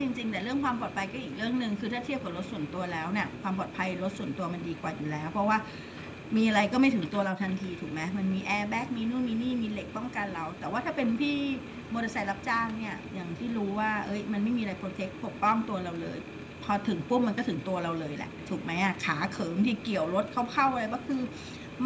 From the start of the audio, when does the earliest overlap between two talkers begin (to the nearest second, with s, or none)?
none